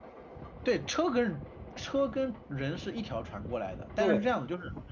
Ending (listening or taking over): listening